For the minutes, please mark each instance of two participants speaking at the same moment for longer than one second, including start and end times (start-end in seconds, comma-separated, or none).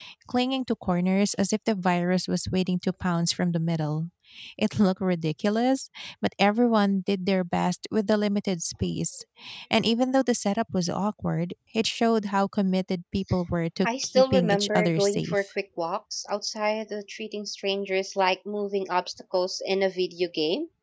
13.8-15.4